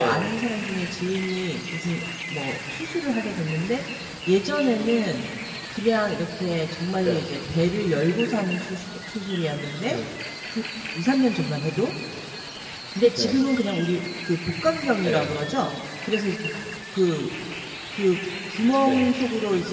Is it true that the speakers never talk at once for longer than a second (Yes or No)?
Yes